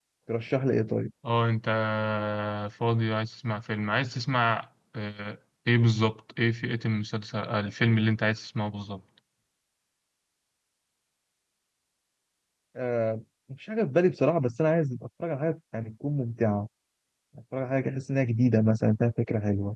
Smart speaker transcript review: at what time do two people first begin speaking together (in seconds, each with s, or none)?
none